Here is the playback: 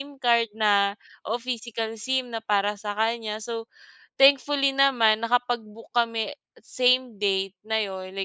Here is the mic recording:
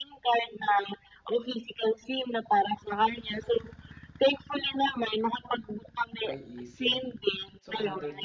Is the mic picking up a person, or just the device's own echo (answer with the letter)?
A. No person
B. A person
B